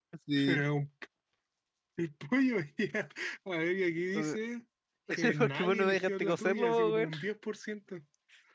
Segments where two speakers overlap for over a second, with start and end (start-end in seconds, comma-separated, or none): 5.4-7.1